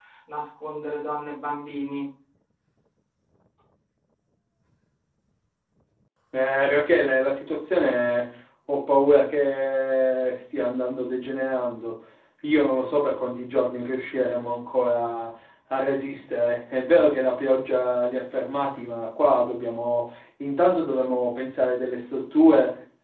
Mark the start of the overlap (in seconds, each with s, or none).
none